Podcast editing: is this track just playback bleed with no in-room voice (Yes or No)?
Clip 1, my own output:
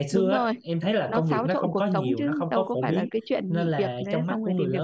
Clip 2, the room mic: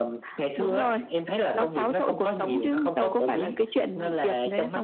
Yes